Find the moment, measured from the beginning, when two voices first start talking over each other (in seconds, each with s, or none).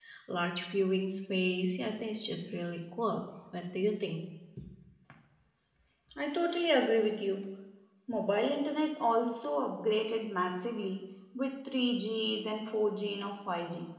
none